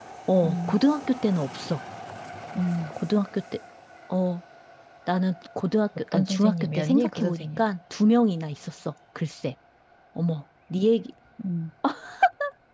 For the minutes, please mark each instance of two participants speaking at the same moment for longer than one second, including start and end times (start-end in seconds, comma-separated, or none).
6.1-7.6